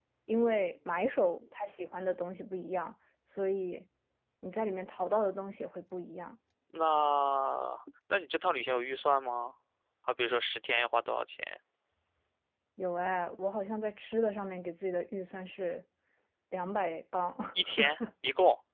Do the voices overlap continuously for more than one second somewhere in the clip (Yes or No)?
No